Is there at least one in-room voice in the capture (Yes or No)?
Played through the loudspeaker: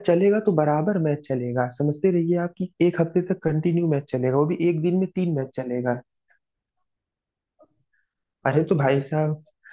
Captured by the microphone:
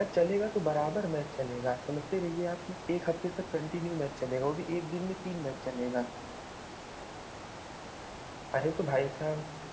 No